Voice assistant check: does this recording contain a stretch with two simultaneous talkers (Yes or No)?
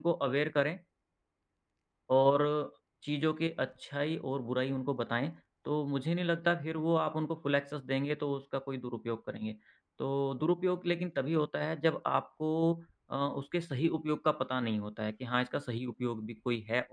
No